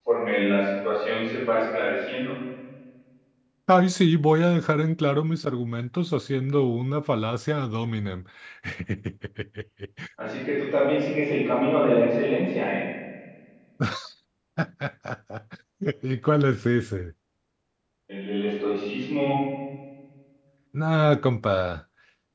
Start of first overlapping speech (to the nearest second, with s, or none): none